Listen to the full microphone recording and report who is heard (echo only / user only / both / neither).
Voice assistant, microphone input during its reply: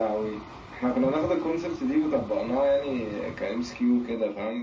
echo only